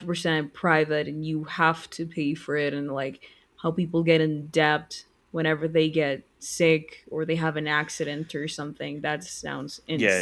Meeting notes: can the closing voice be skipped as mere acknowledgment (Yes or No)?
No